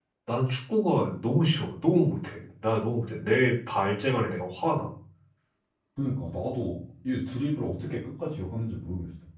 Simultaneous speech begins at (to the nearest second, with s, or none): none